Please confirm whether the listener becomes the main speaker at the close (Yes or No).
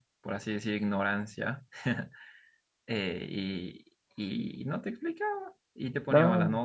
No